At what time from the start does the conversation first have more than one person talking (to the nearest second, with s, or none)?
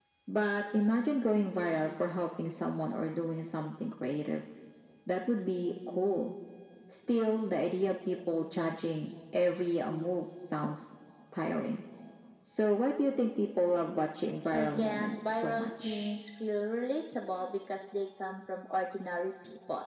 15 s